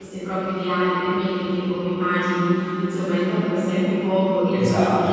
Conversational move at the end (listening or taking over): taking over